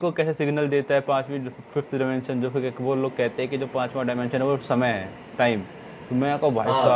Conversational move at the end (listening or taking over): listening